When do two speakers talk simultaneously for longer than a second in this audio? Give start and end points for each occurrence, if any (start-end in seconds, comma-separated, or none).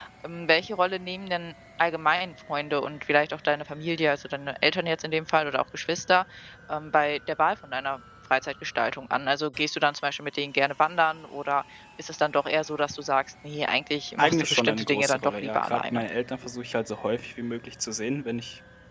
14.2-16.0